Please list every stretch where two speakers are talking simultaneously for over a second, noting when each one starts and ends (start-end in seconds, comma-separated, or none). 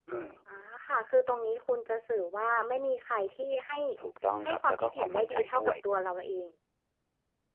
4.4-5.8